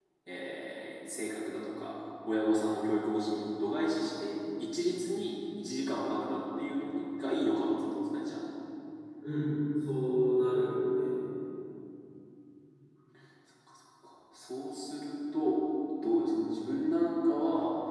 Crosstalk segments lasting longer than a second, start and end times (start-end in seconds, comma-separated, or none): none